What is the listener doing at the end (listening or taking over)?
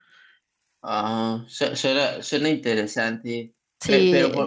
listening